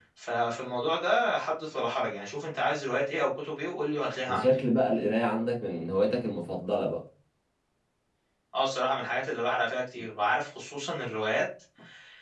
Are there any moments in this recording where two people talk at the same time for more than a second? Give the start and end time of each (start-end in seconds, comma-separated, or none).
none